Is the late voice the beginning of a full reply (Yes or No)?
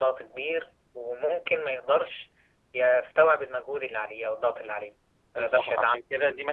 Yes